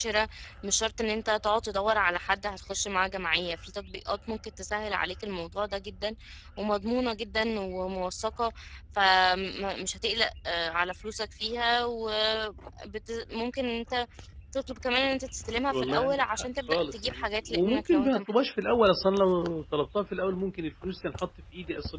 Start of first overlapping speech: 15.7 s

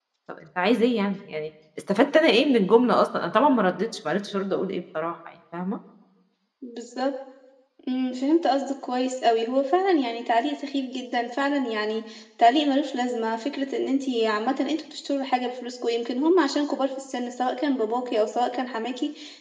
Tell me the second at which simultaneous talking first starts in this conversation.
none

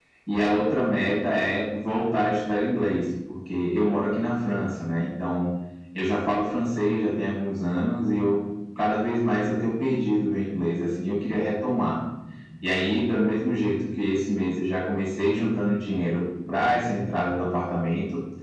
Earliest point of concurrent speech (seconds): none

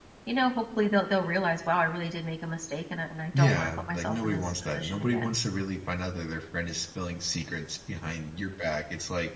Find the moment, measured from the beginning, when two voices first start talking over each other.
3.3 s

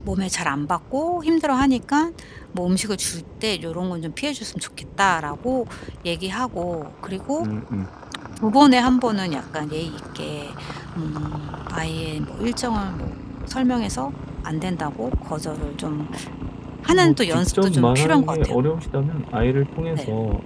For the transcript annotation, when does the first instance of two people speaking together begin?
16.9 s

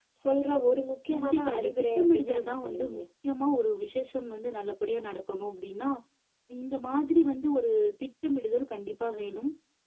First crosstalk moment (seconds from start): 1.1 s

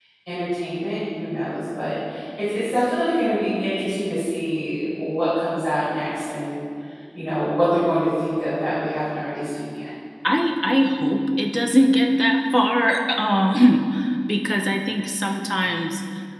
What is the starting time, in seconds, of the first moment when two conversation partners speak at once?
none

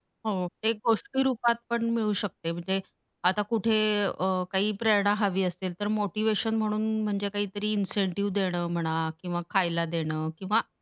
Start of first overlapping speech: none

